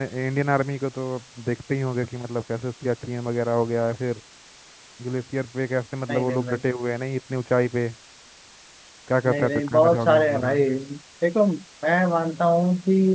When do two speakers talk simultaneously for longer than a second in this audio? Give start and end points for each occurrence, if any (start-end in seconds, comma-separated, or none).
9.3-10.6